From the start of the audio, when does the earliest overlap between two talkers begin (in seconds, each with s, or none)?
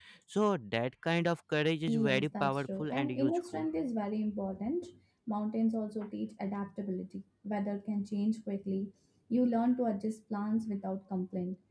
1.9 s